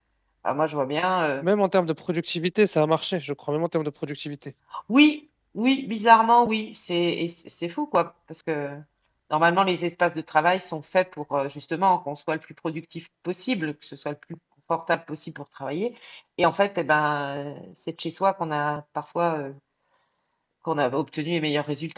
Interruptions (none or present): none